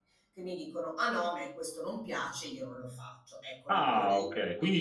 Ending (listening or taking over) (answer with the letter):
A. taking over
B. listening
A